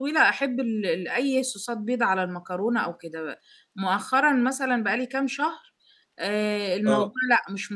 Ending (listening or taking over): listening